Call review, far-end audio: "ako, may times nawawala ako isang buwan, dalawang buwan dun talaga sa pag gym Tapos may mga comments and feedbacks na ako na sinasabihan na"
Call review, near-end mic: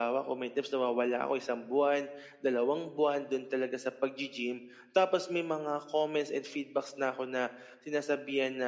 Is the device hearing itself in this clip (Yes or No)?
Yes